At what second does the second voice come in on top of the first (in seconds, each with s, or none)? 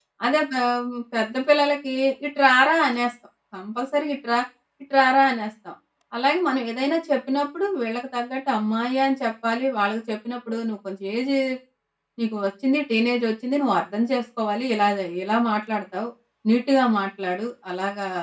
none